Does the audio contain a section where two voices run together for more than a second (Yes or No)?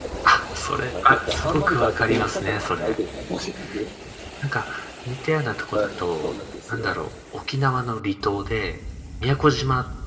Yes